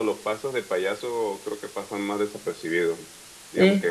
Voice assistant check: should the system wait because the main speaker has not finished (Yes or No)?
Yes